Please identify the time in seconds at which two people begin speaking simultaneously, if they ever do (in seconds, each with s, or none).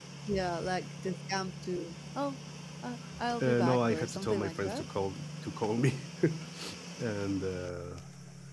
3.4 s